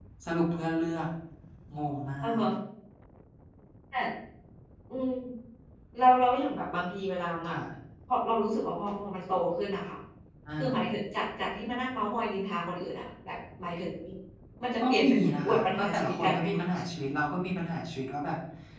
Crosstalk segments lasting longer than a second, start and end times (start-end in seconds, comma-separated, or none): 14.8-16.6